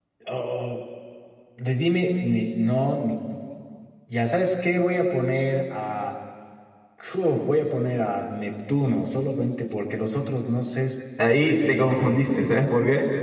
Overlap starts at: 11 s

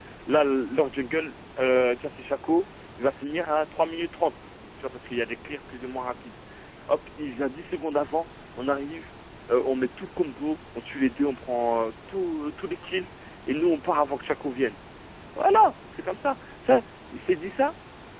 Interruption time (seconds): none

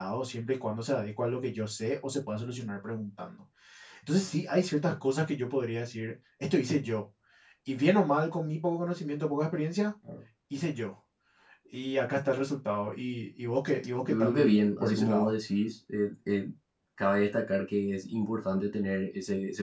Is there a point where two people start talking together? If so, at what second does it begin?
14 s

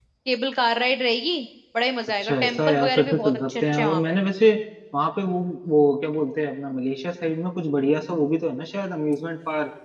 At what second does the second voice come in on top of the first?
2 s

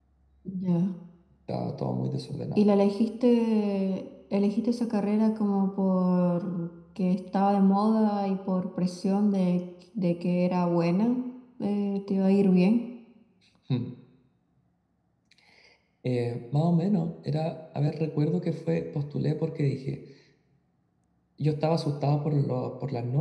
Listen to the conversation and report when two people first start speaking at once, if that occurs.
none

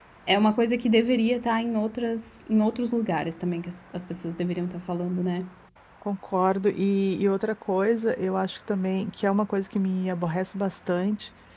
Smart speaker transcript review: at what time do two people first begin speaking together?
none

